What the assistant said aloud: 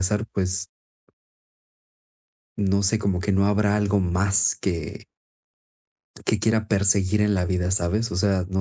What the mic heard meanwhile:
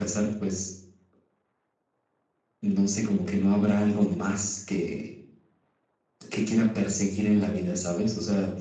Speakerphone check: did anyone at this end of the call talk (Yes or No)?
No